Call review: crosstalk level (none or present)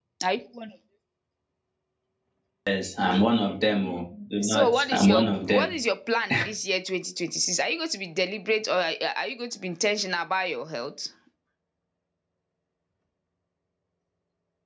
present